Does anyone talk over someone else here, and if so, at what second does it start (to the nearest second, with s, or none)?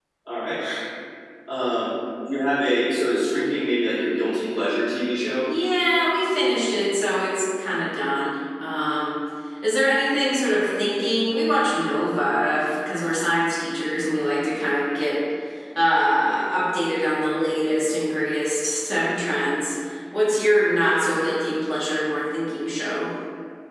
none